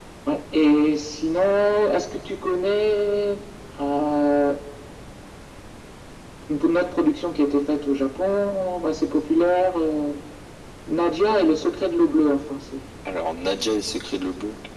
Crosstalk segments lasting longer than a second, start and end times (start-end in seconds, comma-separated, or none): none